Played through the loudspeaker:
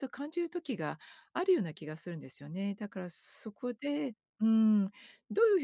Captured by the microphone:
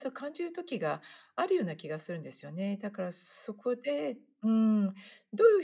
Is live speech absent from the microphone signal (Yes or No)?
Yes